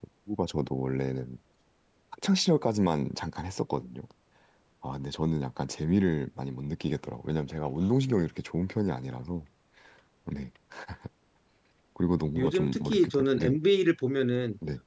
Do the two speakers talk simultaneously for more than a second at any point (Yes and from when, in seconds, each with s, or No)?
Yes, from 12.3 s